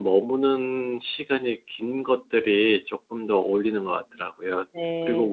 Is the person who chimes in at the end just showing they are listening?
Yes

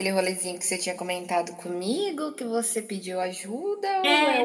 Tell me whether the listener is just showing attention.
No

